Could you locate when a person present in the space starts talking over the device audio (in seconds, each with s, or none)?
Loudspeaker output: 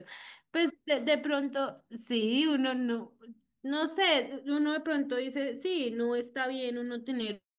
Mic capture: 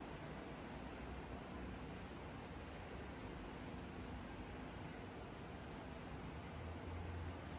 none